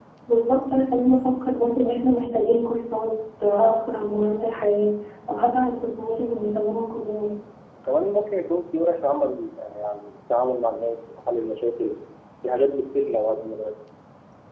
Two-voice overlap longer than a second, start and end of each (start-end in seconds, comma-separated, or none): none